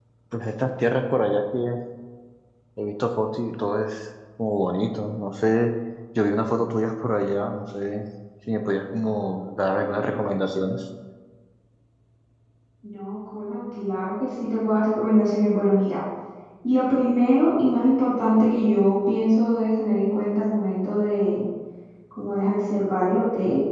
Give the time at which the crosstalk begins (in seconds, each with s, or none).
none